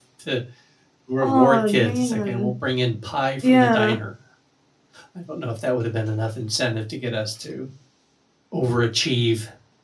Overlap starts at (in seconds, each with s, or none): 1.2 s